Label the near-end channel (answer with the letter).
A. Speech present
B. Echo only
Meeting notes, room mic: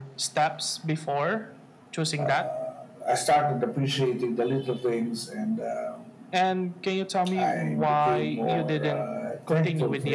B